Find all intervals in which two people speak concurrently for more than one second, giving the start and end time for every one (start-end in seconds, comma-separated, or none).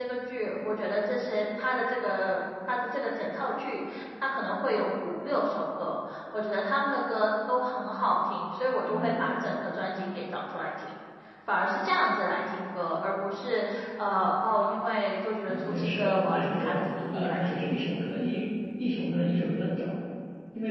15.5-17.7